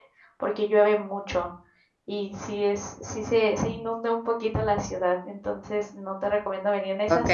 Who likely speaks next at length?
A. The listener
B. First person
A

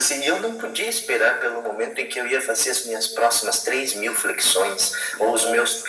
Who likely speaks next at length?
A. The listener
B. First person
B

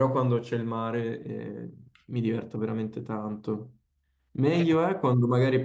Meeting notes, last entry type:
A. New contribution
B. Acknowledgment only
B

